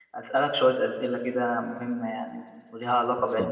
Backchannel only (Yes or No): Yes